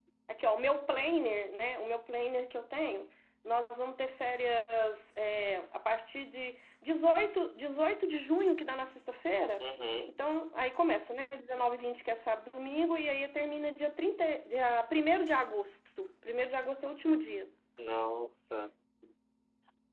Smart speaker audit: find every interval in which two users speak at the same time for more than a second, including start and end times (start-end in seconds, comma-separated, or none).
none